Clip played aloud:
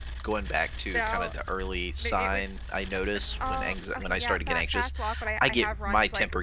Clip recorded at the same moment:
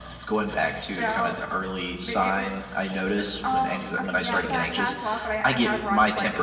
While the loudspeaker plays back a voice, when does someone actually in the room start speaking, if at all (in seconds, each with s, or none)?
none